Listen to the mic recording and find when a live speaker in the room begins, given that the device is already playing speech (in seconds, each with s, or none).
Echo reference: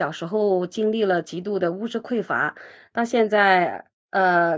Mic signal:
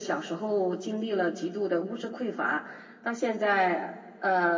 none